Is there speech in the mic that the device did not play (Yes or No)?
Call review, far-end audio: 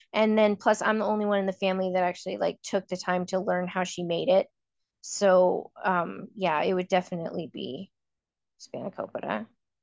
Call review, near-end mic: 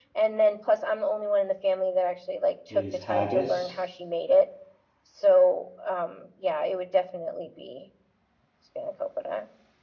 Yes